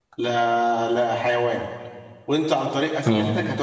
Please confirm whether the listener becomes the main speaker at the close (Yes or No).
No